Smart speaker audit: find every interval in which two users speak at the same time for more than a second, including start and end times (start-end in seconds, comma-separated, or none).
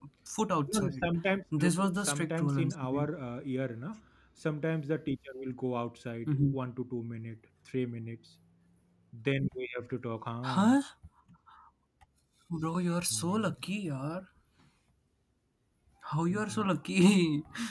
1.6-3.1